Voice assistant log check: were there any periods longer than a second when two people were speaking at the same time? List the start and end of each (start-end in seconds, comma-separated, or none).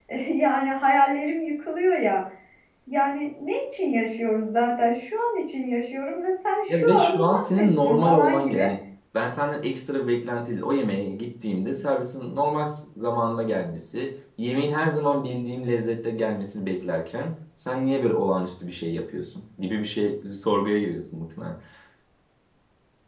6.7-8.6